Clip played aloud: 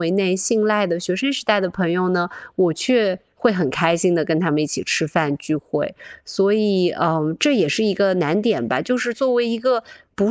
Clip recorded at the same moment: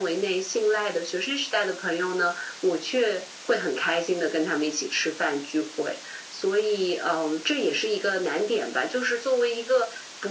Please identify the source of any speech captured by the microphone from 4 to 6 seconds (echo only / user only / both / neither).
echo only